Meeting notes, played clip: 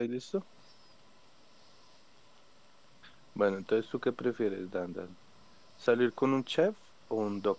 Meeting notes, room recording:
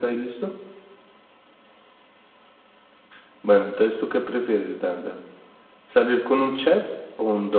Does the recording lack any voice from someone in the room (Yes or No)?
Yes